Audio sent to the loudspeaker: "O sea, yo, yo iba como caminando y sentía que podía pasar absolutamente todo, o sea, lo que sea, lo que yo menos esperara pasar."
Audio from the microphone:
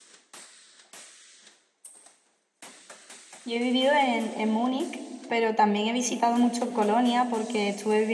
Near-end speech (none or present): present